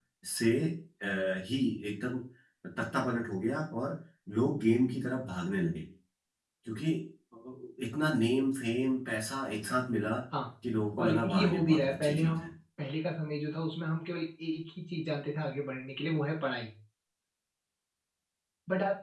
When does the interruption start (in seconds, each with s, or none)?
11.0 s